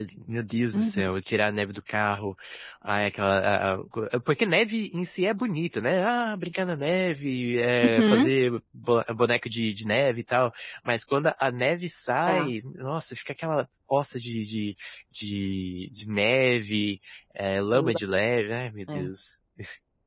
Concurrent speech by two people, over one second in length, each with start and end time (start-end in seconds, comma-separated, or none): none